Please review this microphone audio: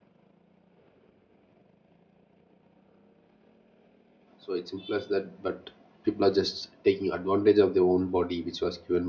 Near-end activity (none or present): present